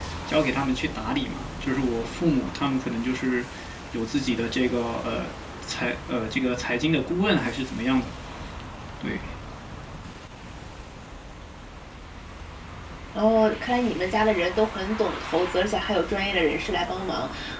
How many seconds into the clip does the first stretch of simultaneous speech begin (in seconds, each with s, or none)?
none